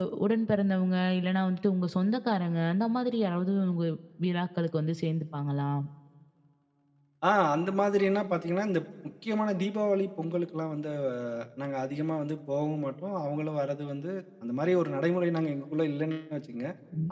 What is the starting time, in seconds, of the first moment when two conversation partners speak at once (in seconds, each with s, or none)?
none